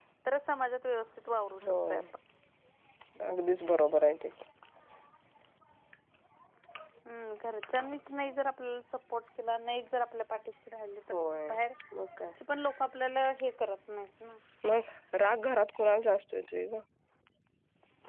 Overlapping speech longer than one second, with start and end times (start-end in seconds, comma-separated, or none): none